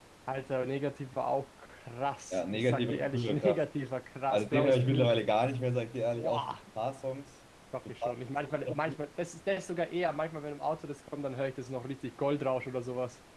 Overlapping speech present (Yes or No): Yes